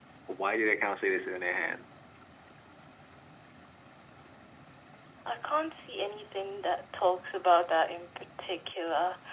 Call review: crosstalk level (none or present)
none